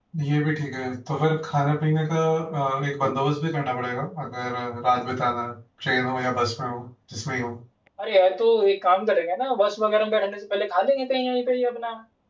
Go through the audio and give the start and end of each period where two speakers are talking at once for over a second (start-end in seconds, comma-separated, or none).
none